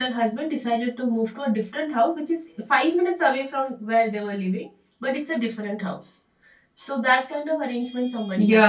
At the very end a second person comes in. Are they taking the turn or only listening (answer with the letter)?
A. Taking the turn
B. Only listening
A